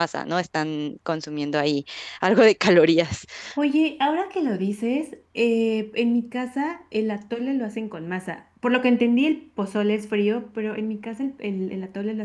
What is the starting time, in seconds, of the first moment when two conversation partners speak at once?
none

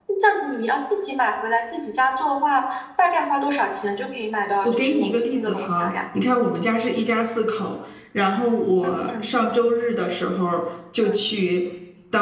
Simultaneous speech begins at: 4.6 s

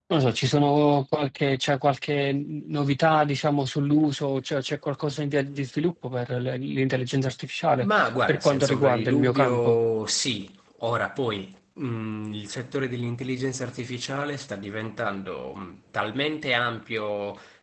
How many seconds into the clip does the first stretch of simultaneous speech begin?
7.8 s

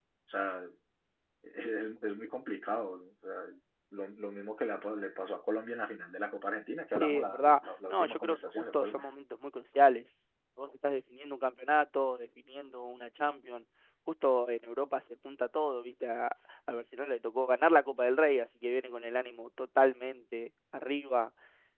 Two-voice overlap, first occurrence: 6.9 s

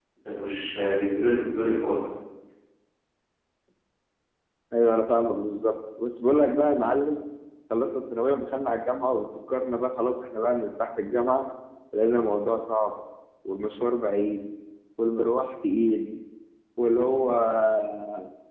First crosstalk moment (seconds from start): none

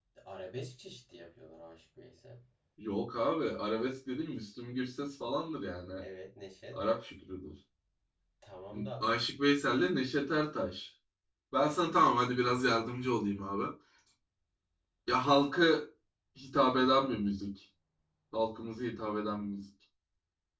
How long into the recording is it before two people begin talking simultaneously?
none

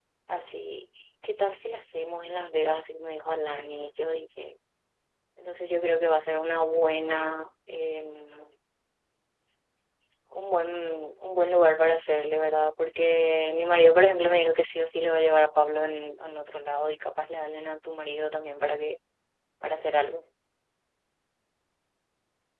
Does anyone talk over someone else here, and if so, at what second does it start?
none

